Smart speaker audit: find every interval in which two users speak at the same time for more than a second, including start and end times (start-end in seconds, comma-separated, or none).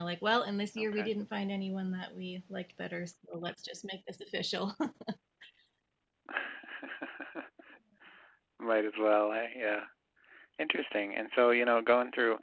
none